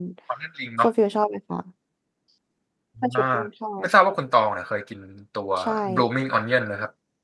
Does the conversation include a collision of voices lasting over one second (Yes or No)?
No